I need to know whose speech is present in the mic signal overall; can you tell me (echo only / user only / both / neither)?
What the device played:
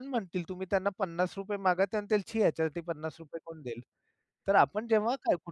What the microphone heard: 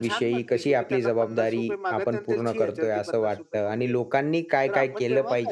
both